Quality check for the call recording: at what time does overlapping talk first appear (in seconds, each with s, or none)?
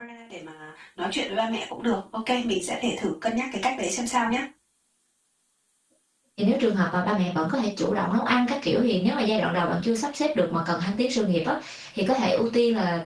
none